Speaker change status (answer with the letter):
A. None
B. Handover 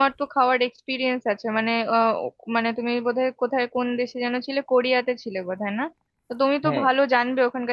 A